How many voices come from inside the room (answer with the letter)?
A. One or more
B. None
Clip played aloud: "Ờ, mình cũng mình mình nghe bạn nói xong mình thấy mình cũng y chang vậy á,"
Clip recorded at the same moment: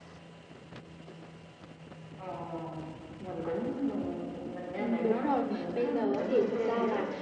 A